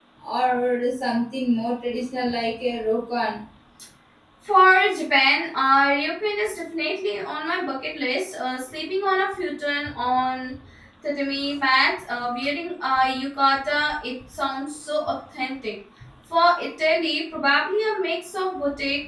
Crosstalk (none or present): none